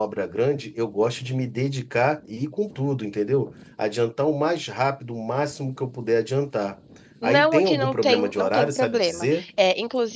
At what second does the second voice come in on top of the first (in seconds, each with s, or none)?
7.2 s